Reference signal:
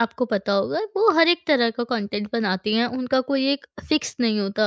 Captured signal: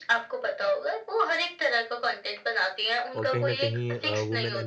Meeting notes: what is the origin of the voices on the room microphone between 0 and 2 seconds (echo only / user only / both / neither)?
echo only